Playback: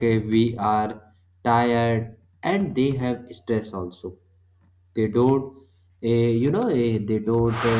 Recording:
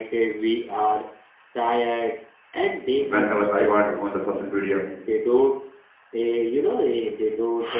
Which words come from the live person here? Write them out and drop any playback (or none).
whenever i want on the social media